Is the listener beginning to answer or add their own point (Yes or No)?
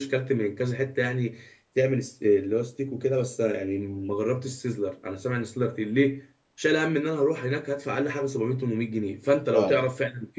No